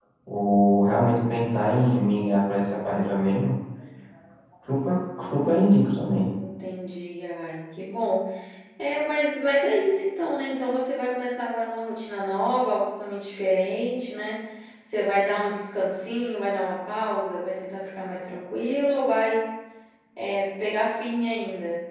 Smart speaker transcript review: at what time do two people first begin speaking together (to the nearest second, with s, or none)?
none